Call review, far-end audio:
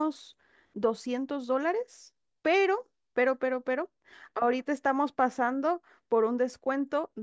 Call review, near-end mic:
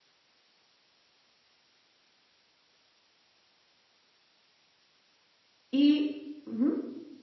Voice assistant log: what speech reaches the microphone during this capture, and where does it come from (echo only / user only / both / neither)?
user only